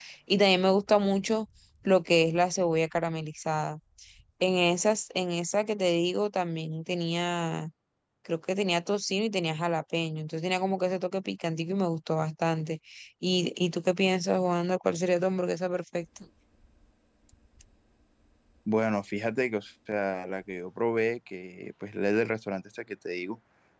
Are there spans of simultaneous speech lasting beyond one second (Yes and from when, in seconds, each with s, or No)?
No